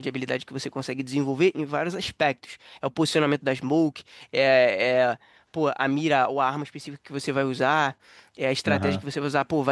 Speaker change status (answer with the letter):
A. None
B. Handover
A